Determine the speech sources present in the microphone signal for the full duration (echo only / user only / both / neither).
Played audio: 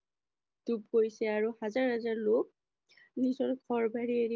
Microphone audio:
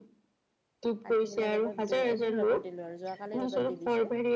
both